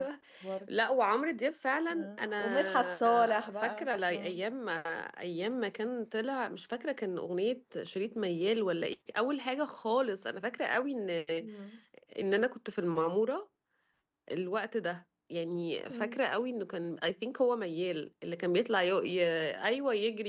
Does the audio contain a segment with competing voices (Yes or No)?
Yes